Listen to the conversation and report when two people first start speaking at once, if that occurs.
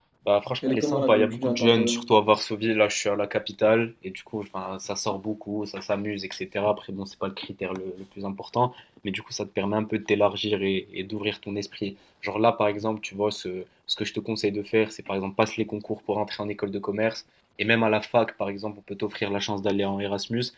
1 s

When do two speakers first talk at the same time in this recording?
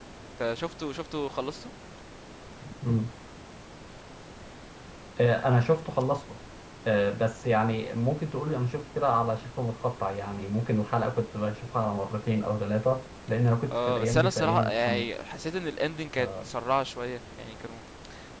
14 s

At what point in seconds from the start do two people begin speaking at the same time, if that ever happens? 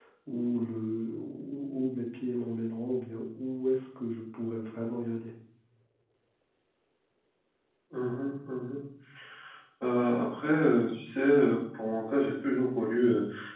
none

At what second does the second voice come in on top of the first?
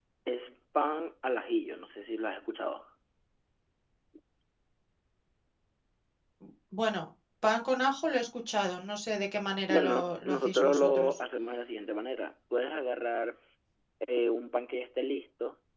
10 s

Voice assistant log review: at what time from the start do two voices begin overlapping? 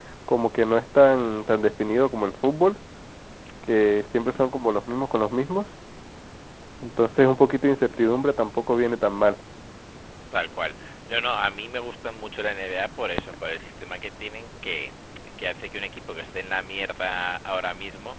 none

